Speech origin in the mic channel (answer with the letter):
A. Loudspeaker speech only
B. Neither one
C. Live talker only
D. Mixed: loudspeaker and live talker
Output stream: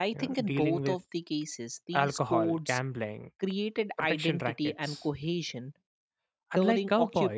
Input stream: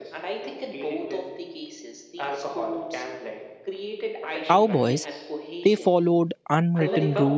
D